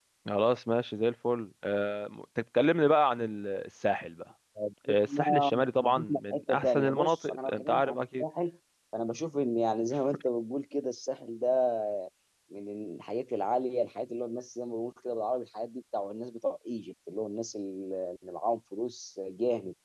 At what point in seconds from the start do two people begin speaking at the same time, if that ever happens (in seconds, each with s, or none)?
4.9 s